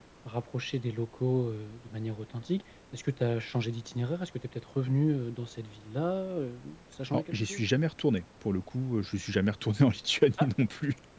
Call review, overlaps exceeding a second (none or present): none